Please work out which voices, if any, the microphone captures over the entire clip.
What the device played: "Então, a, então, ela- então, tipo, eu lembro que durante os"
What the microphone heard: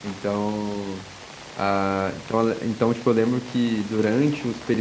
echo only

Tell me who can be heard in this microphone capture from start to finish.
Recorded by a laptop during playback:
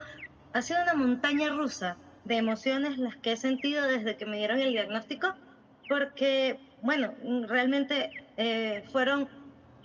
echo only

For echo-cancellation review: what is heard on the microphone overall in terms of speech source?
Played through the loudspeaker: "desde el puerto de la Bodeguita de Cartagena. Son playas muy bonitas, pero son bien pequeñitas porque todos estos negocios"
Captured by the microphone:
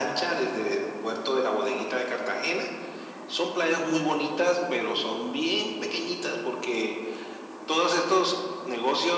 echo only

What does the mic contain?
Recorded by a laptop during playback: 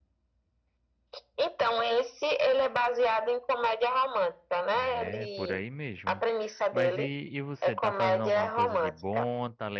both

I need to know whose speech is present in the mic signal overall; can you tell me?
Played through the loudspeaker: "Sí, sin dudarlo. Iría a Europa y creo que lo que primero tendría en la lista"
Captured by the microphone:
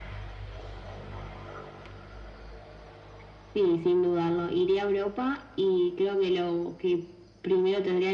echo only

